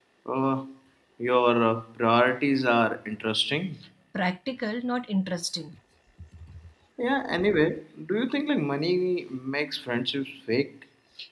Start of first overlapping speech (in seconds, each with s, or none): none